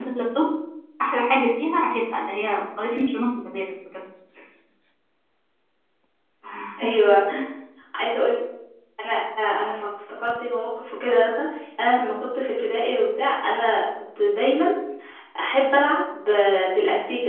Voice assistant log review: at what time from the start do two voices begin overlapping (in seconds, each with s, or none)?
none